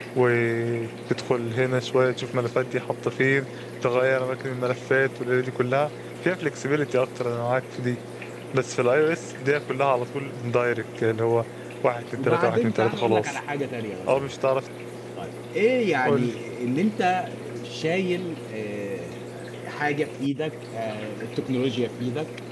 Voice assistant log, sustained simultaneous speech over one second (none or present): present